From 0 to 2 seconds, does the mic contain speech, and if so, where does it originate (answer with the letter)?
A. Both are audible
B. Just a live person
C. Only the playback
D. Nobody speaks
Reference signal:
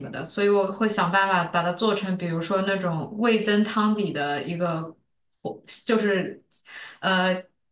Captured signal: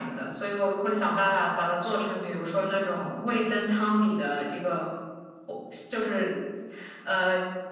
C